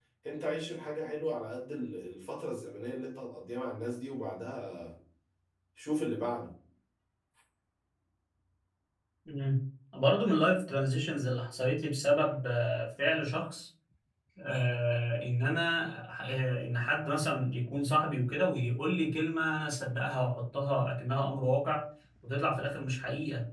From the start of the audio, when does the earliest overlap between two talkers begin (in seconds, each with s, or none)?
none